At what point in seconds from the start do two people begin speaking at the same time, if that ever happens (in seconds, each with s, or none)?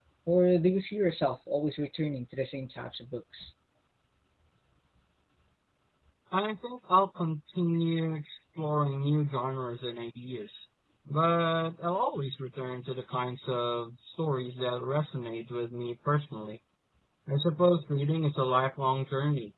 none